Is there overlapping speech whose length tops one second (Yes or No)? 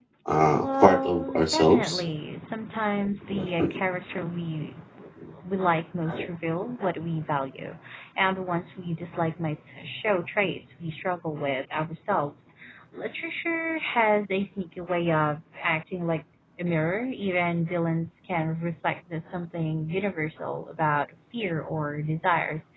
Yes